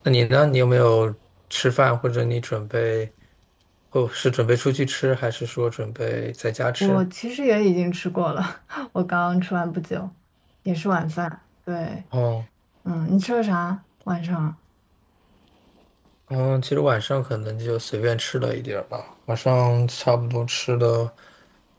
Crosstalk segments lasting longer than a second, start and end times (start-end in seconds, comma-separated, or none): none